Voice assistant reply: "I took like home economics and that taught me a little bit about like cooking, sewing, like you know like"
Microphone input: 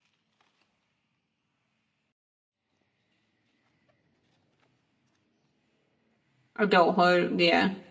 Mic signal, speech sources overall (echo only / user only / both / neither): user only